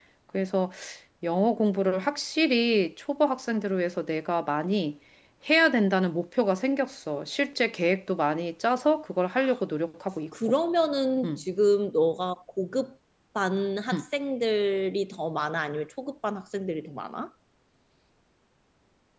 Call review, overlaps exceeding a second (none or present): none